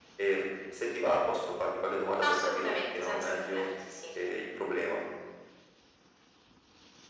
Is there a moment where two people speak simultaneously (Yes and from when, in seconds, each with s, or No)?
Yes, from 2.2 s